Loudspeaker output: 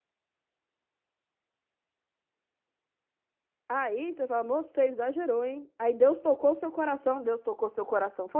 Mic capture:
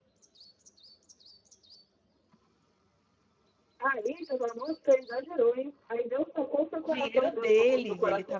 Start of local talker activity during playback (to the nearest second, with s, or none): 7 s